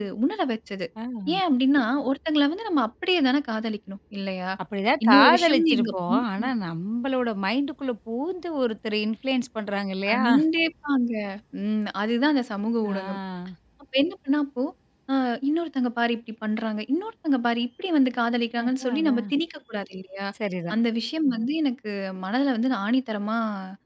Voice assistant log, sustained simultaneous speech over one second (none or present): present